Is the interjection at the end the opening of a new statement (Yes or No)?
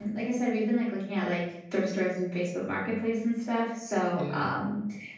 No